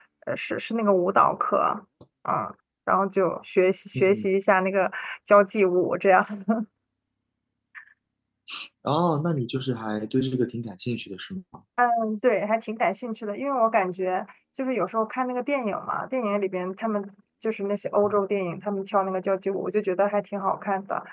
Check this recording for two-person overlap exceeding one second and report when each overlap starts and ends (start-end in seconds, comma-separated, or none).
none